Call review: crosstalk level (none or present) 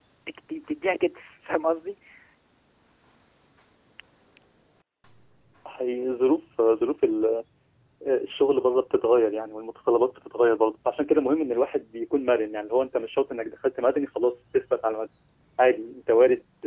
none